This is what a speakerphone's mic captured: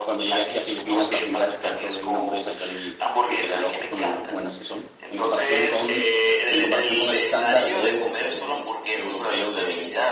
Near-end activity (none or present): present